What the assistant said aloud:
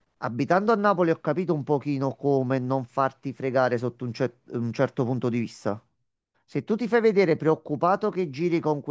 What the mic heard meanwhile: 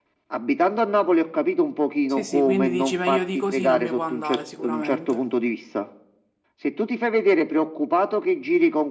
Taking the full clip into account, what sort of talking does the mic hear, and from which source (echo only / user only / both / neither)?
both